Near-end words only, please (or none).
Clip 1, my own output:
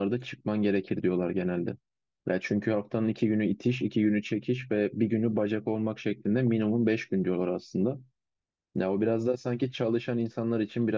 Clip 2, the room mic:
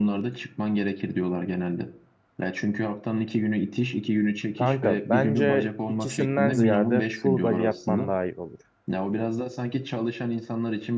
kanka bence ikisinden ziyade full body yapman daha iyi olur.